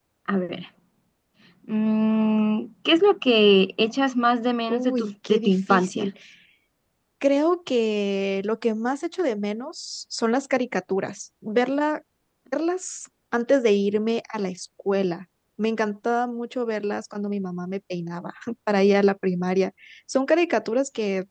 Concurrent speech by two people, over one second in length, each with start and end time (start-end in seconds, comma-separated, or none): 4.7-6.1